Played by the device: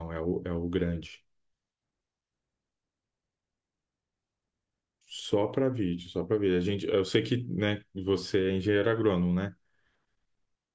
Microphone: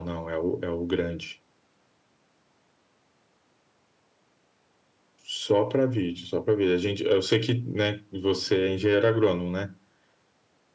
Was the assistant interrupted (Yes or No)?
No